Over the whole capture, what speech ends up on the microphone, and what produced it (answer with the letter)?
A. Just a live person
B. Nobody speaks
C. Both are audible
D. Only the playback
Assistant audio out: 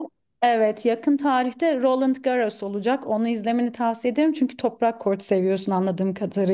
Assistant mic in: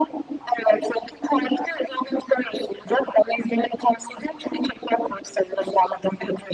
D